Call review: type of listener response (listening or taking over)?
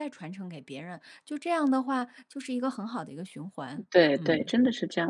taking over